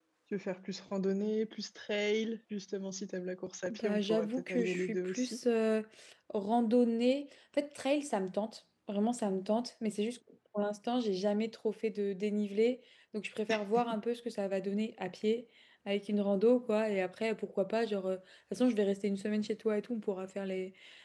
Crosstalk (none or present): present